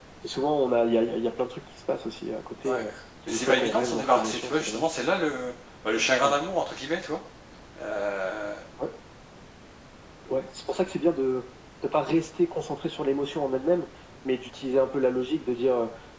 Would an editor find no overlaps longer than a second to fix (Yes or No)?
No